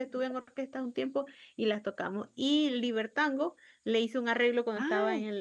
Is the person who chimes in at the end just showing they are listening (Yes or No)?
Yes